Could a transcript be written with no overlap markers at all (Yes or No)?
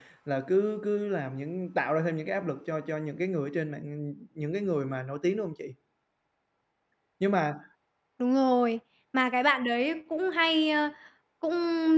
Yes